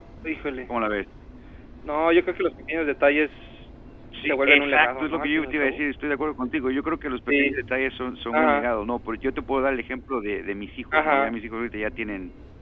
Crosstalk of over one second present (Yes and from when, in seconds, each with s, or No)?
Yes, from 4.2 s